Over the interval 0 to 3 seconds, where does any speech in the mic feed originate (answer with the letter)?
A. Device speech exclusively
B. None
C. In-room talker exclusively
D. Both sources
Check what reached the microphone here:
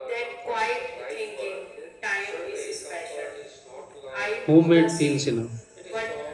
A